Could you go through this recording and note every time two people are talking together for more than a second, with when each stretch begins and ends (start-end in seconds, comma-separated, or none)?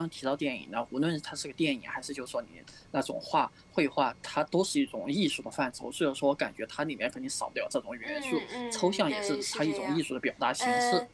8.0-10.0